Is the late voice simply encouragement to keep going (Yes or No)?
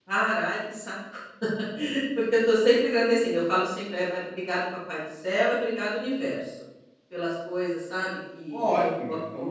No